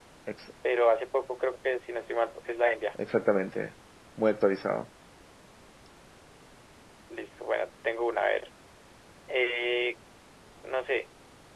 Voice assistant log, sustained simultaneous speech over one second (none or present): none